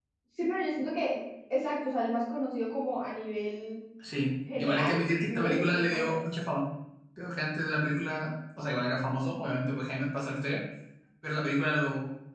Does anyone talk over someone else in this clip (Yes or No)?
Yes